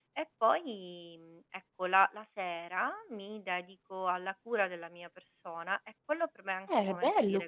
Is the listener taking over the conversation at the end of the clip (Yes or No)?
Yes